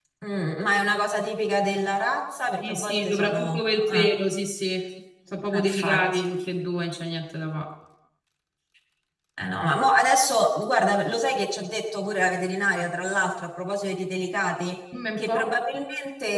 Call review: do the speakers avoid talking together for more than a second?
No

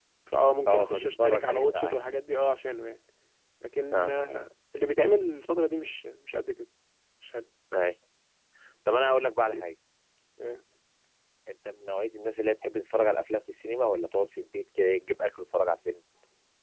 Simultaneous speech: Yes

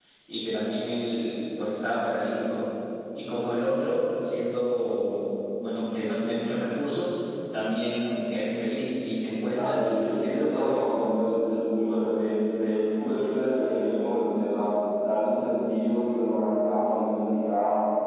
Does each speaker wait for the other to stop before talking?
No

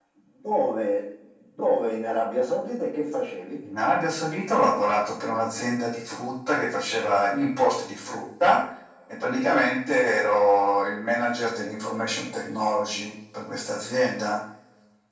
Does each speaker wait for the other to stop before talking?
Yes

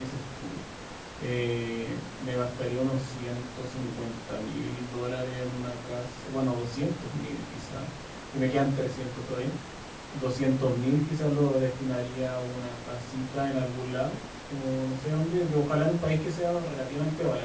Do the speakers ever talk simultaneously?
No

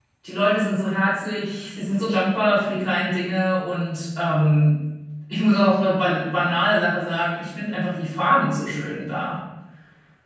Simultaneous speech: No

